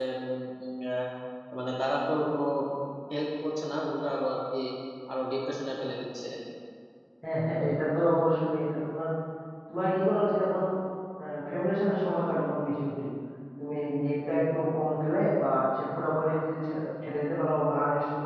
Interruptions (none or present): none